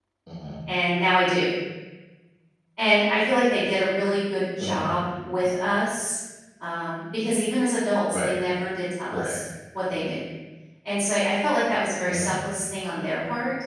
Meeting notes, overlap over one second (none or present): none